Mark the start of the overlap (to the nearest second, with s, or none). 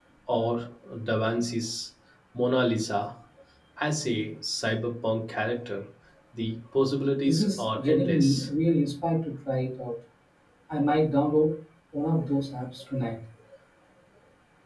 7 s